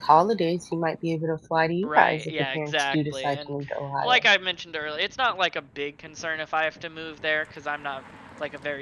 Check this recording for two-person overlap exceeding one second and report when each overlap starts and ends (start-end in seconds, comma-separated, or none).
1.8-3.5